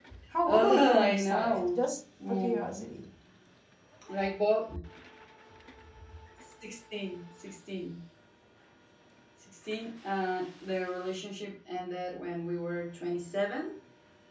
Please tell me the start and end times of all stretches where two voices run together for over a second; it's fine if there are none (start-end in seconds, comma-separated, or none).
0.6-1.8